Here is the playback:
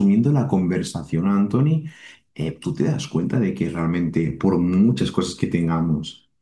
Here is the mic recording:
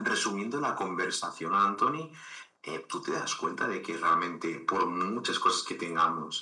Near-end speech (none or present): none